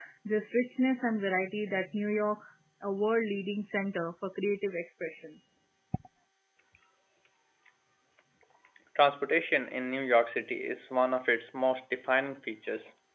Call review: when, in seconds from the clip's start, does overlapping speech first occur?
none

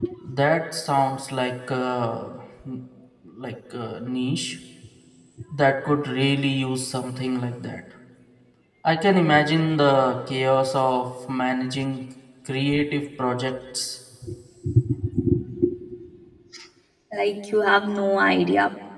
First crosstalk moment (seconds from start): none

